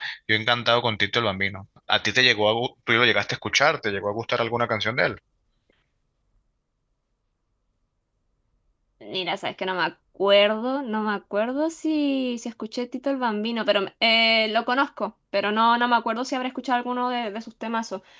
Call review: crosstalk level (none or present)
none